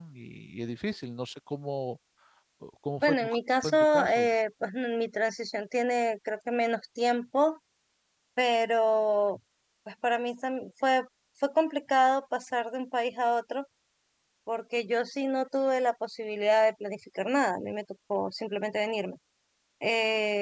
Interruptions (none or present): present